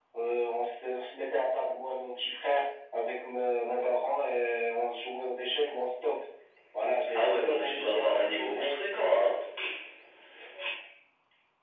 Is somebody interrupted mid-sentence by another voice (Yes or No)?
Yes